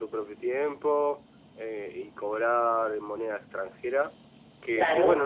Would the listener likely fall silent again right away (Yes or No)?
Yes